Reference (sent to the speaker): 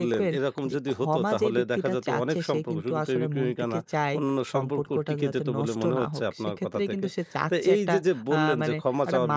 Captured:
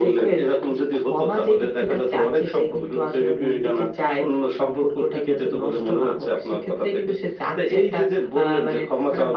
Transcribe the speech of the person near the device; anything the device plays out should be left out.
none

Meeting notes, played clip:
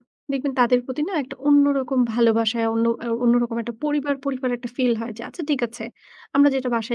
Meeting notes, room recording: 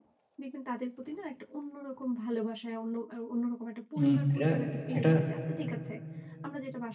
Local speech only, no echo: উম এটা এটা

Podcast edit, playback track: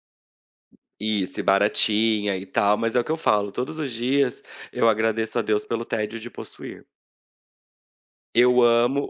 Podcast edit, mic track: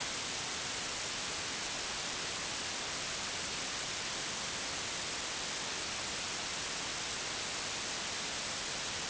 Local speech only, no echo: none

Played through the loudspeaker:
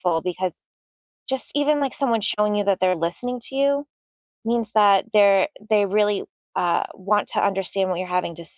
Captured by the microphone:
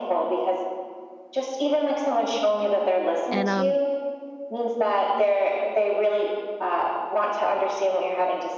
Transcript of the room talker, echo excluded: and um

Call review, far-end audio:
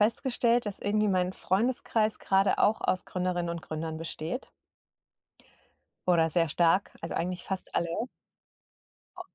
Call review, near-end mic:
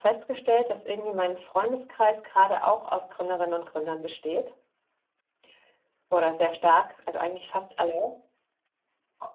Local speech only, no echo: none

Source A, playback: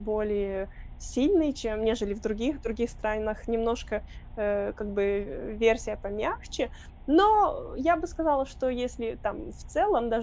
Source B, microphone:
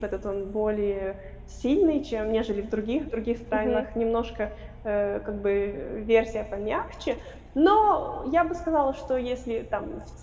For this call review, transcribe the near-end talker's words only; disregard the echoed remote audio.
мгм,

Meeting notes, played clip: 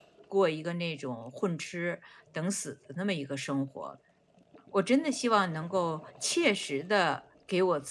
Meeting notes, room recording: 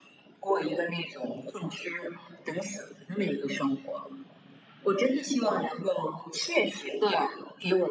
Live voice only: none

